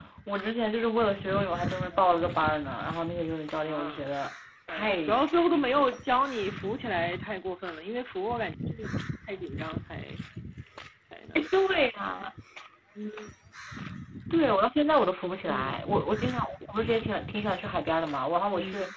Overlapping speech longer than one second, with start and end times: 4.7-5.9

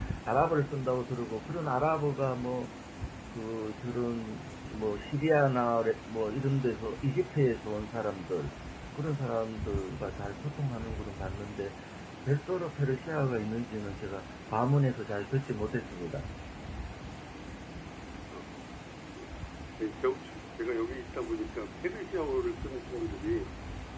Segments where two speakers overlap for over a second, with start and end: none

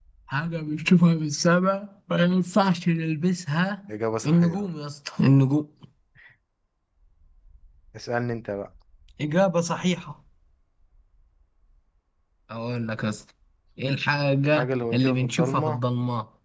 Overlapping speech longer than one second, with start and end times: 14.5-15.8

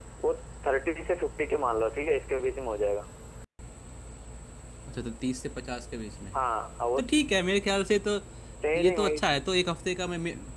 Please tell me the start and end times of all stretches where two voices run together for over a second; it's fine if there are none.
none

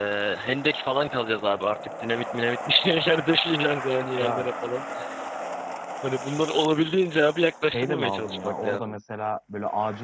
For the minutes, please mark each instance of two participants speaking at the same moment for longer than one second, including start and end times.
7.6-8.9

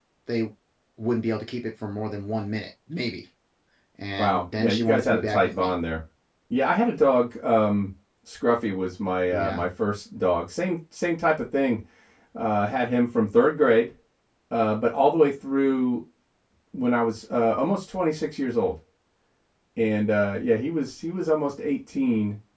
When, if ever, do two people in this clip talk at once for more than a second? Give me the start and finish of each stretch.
4.2-5.7

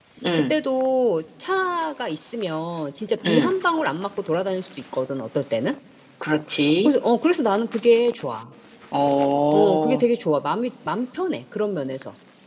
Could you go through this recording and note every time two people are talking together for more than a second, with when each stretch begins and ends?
none

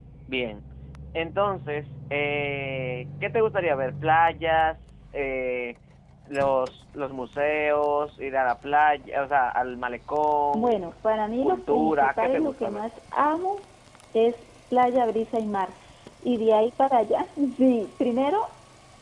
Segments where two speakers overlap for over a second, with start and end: 11.4-12.8

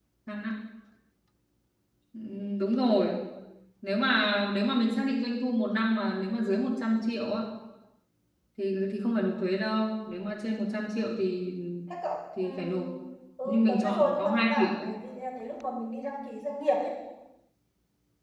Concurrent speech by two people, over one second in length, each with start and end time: 13.4-14.7

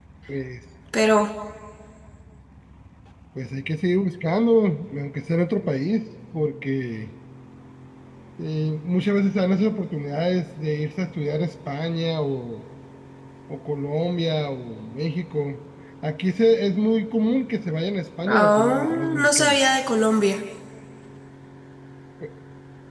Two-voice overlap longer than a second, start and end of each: 18.2-19.6

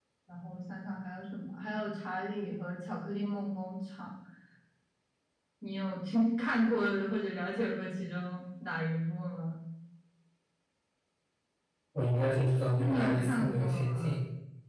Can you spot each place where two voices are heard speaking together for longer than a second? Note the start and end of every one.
12.8-14.1

